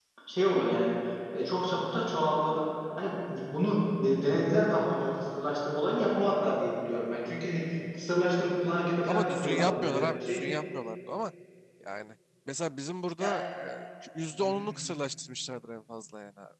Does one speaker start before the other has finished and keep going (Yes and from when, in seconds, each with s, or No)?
Yes, from 9.1 s